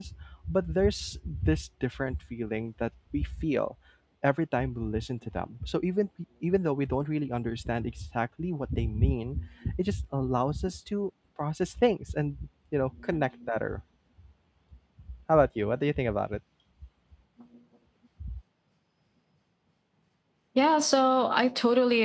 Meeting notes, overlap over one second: none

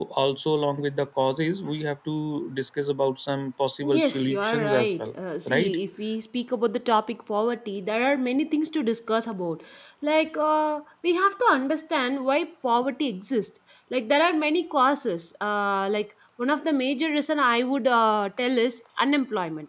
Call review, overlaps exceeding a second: present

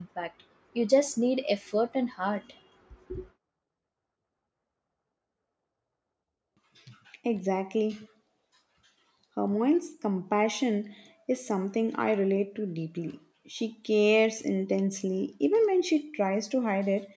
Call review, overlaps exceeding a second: none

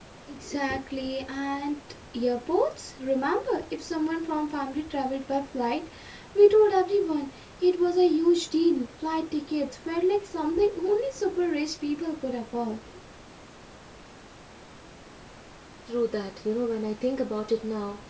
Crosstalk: none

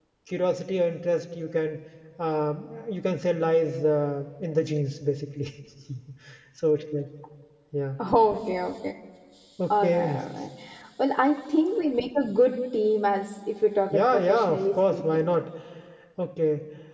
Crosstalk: present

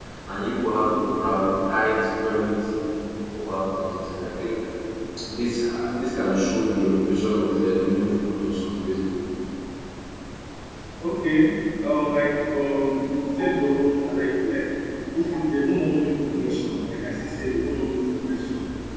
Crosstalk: none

